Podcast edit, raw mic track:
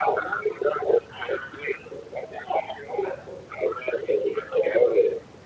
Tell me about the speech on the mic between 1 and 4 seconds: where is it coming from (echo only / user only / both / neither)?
echo only